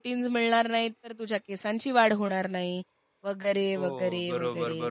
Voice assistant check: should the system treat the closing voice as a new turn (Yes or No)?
Yes